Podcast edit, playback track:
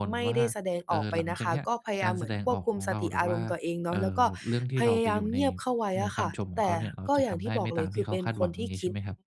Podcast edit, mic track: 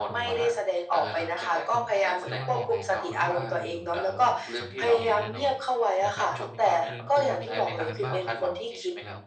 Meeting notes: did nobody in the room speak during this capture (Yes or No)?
No